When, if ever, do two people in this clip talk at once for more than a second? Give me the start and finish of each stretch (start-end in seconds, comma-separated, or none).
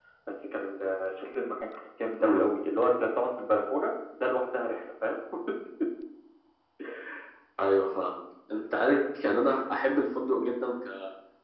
none